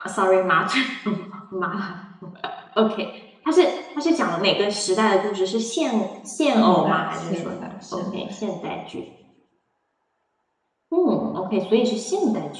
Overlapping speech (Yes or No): Yes